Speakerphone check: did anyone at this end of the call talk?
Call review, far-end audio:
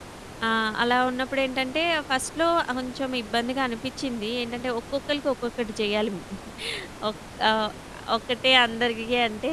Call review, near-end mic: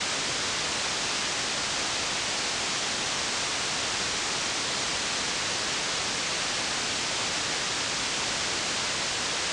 No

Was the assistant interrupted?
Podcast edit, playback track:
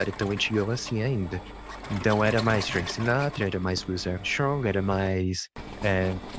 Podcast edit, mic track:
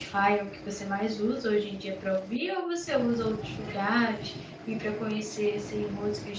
Yes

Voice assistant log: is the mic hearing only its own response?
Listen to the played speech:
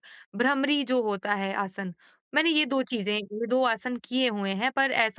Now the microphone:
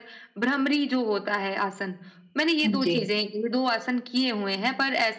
No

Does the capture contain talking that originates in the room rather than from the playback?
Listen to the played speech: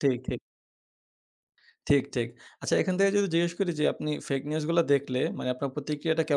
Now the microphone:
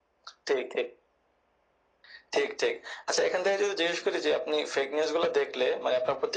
No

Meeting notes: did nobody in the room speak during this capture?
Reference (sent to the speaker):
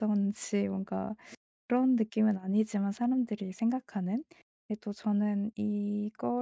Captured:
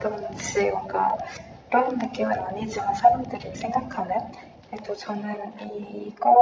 Yes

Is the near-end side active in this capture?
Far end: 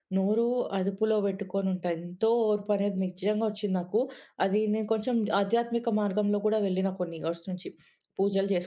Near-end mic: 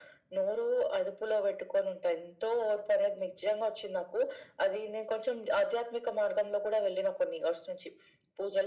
No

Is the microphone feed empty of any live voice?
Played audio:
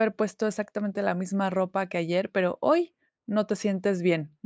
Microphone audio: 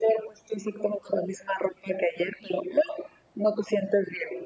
Yes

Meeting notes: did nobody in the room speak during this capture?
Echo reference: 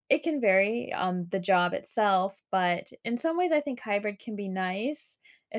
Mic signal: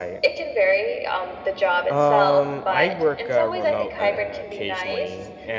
No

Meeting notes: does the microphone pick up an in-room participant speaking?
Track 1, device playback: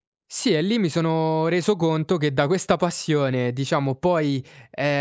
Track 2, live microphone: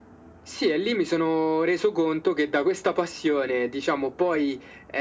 No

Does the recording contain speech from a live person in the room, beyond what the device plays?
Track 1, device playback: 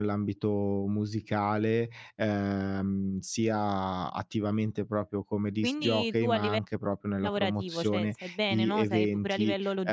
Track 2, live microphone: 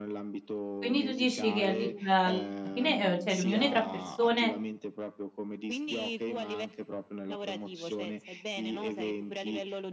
Yes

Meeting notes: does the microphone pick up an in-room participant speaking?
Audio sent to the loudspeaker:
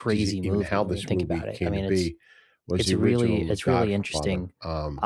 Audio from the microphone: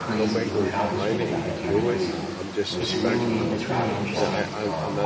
Yes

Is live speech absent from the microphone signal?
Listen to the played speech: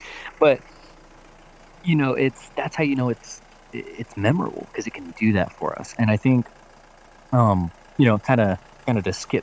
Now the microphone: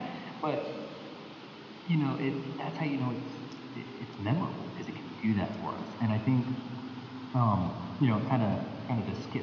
Yes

